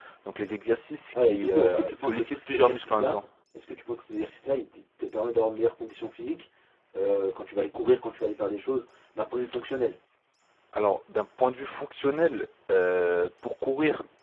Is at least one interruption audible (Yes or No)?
Yes